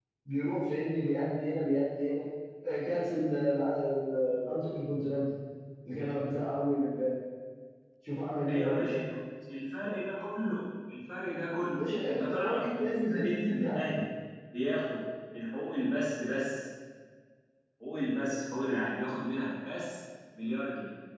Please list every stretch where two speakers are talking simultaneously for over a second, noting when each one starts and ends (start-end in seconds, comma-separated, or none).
11.8-14.0